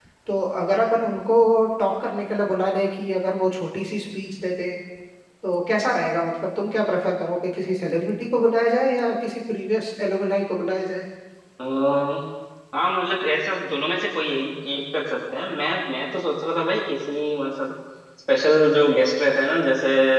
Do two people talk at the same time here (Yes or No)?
No